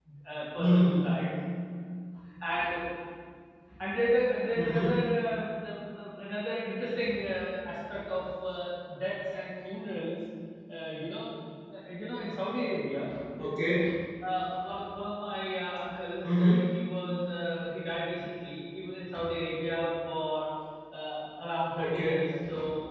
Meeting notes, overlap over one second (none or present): none